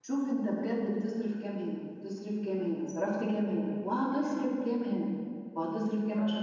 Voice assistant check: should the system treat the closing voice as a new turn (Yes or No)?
No